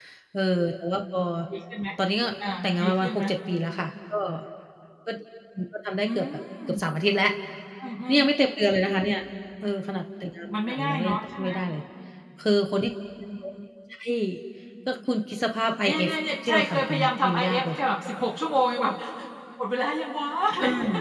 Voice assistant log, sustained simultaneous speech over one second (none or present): present